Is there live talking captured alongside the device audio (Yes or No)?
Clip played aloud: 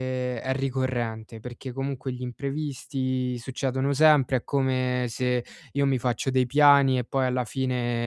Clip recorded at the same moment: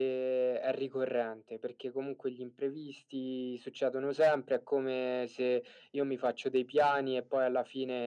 No